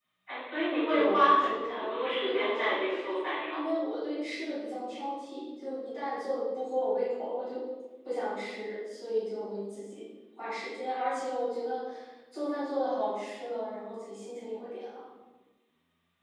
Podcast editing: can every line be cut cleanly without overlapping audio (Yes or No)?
No